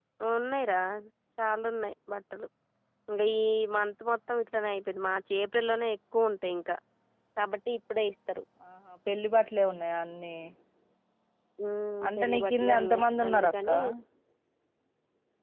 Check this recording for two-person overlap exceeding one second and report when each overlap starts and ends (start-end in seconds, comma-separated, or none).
12.2-13.7